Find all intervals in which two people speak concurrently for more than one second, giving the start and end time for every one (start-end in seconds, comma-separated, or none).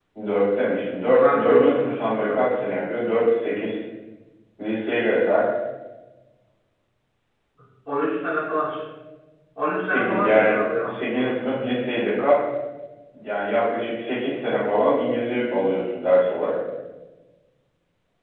1.0-2.4, 9.8-11.4